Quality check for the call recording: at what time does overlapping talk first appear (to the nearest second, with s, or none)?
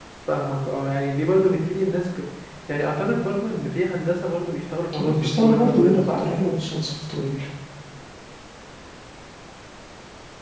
5 s